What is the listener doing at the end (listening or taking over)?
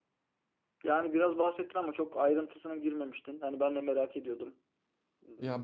taking over